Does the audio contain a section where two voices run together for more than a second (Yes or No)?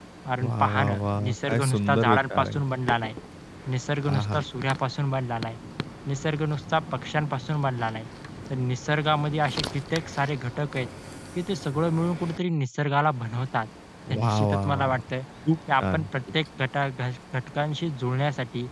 Yes